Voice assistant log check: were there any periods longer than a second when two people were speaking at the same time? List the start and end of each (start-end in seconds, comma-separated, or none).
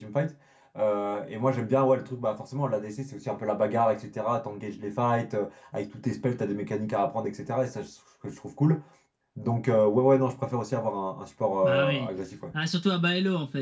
none